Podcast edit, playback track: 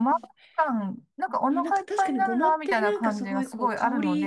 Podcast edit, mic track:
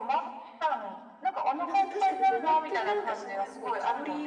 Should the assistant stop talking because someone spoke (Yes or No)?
No